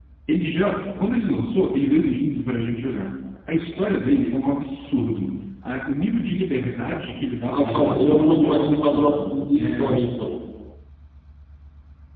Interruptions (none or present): present